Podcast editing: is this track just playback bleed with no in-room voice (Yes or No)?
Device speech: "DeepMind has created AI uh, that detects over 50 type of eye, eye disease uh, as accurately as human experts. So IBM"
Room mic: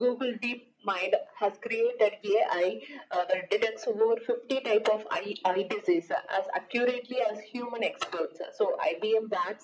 Yes